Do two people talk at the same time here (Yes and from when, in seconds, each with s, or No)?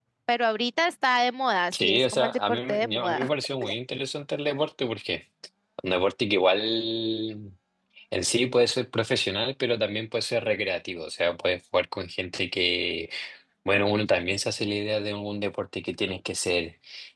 Yes, from 1.7 s